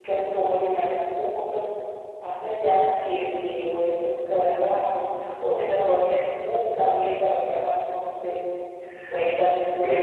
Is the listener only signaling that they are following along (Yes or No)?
No